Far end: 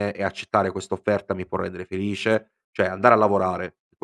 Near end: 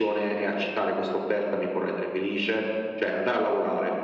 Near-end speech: none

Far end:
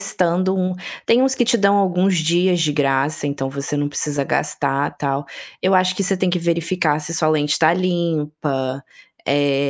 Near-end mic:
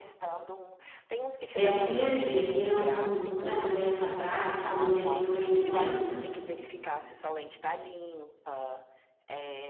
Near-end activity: present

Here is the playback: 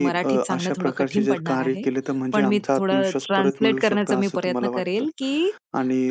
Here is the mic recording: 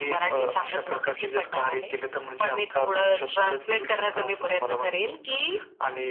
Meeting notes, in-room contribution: none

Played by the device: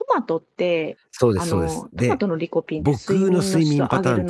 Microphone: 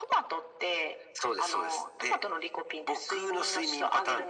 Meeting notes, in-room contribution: none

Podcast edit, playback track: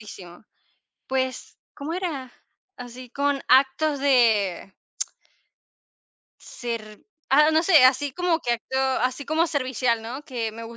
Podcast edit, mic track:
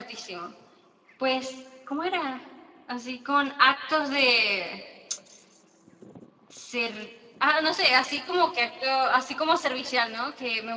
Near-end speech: none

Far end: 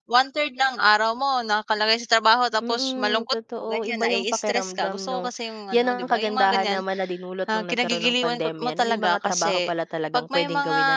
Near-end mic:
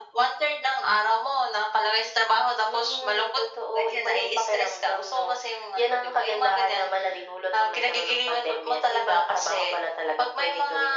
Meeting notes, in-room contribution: none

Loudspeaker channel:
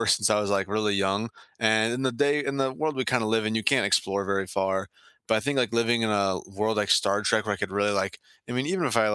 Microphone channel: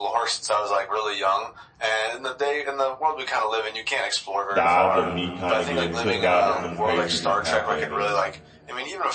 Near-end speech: present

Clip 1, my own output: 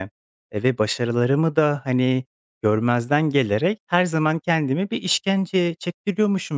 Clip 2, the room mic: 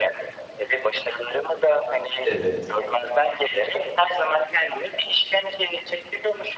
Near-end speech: present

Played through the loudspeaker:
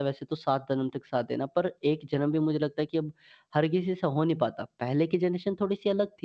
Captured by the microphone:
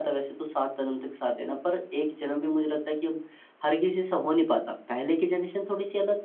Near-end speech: none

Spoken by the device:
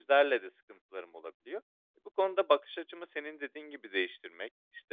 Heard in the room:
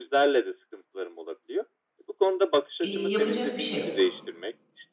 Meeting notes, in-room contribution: present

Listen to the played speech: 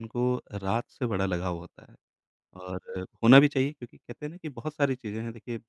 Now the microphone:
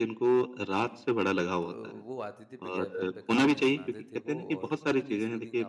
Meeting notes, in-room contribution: present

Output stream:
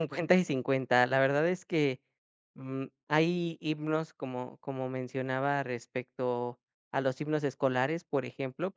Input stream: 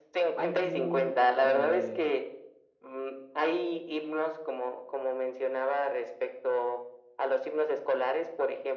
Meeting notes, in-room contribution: present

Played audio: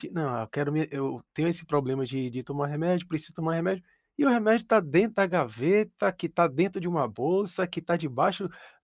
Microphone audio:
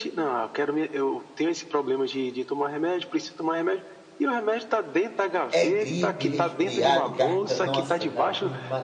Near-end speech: present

